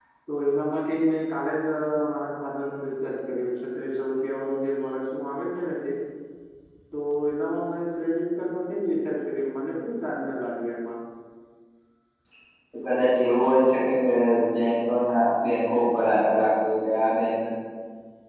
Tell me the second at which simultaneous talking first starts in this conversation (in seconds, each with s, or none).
none